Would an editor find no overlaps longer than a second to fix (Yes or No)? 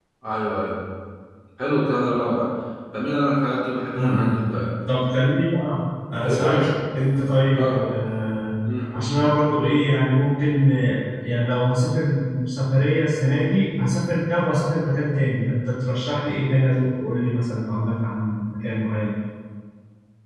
Yes